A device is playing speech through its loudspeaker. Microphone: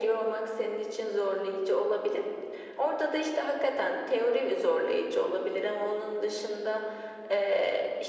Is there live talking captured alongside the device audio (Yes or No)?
No